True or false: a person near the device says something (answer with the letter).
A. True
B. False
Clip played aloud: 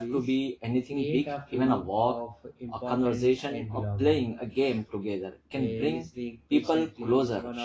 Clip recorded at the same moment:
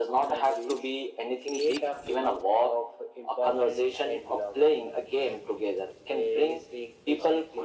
B